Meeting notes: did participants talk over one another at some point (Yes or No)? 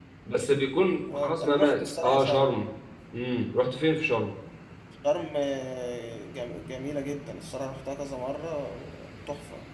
Yes